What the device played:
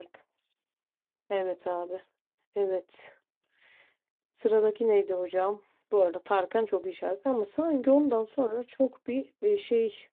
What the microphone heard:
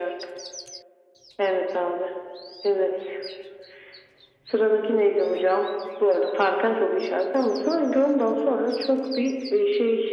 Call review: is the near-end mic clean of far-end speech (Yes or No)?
No